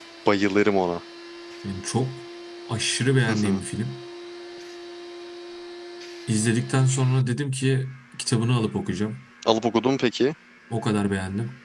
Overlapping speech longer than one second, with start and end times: none

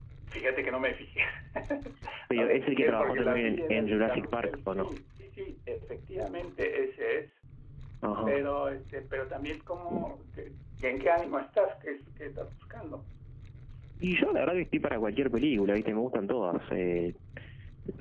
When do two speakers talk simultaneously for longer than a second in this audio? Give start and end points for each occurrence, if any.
2.3-4.9

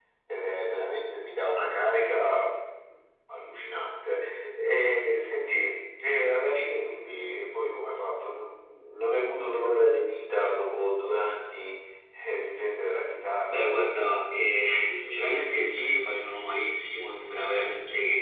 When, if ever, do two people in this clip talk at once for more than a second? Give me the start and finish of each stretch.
none

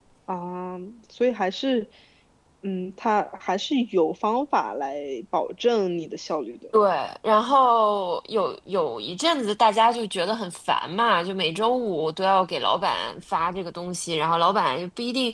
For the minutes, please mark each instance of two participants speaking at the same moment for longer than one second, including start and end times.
none

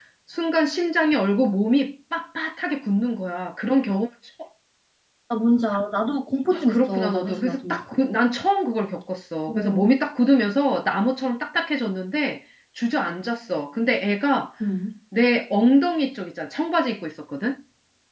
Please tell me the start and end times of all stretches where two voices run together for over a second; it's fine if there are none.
6.5-7.8

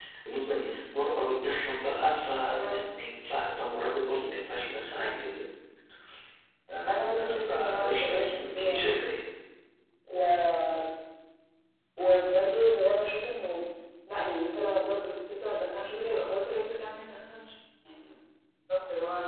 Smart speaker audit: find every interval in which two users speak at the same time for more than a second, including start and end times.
7.2-9.1

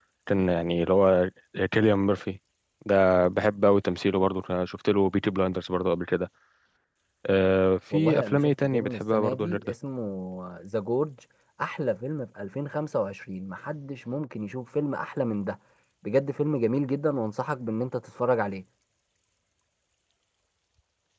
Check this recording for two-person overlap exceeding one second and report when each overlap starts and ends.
7.9-9.7

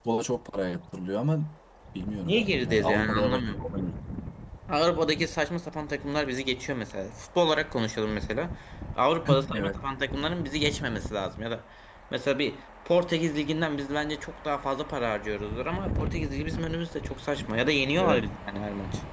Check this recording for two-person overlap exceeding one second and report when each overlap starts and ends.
2.2-3.6

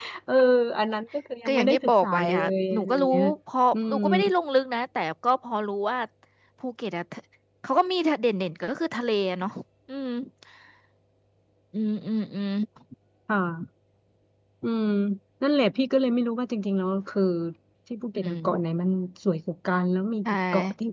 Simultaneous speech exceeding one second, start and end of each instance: 1.4-3.1

